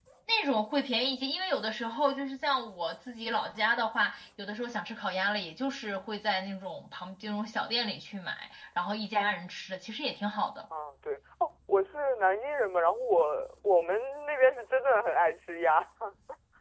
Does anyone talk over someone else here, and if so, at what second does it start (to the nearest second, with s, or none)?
none